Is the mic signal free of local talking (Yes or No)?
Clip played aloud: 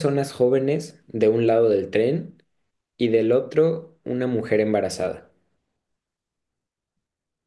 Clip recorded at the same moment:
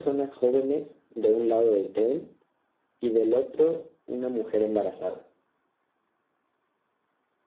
Yes